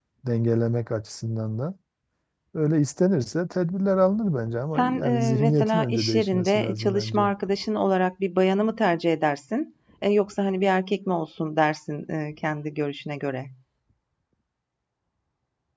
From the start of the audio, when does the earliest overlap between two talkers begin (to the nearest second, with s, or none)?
5 s